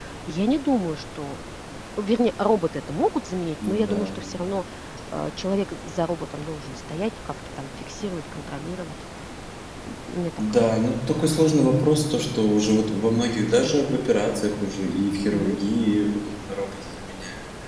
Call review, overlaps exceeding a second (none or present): none